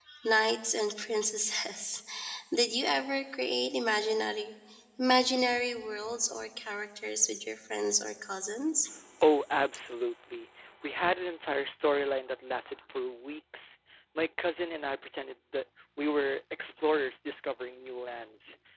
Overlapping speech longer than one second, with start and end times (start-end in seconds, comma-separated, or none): none